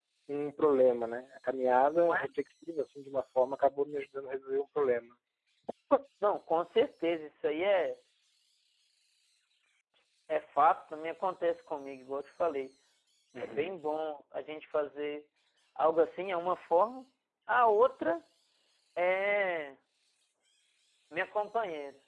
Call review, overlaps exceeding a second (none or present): none